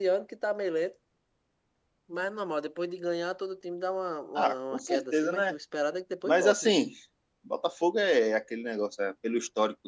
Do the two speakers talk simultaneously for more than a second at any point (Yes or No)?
Yes